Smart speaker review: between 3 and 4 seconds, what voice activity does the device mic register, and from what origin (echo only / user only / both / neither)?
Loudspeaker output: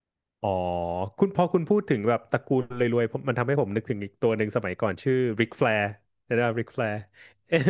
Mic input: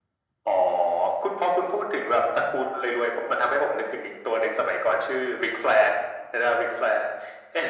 echo only